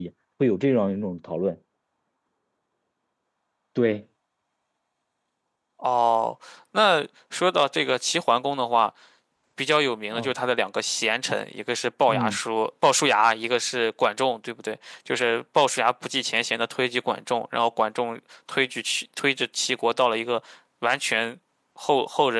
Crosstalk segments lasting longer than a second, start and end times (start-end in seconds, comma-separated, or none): none